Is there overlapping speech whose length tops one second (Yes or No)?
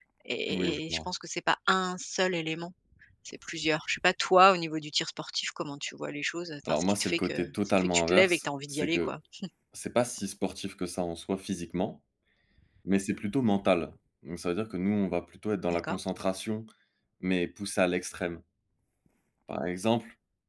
Yes